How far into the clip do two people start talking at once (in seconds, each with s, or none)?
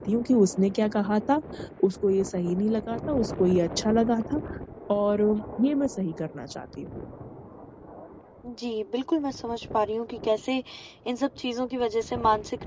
none